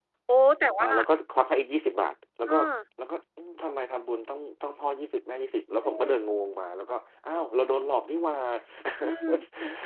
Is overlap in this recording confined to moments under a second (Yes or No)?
Yes